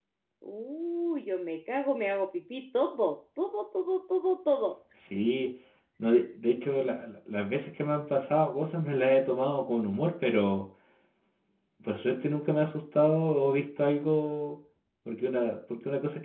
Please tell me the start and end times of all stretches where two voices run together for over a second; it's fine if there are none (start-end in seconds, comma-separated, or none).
none